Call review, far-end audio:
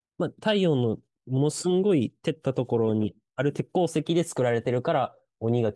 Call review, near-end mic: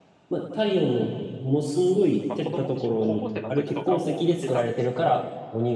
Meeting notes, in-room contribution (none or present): present